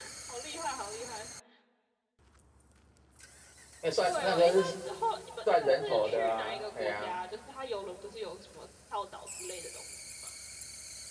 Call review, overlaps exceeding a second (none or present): present